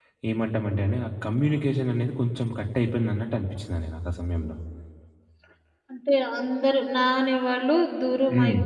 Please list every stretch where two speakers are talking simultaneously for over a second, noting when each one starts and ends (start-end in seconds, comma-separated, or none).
none